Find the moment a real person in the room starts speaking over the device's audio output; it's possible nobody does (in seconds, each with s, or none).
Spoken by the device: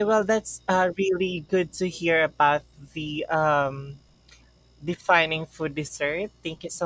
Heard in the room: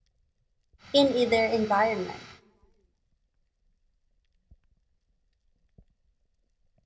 0.9 s